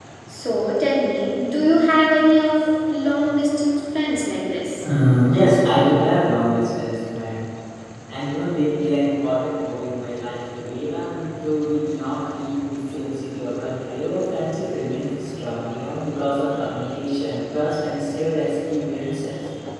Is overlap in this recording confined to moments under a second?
Yes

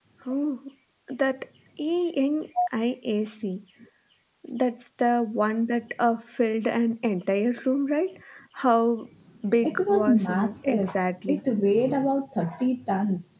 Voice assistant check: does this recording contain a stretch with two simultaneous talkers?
Yes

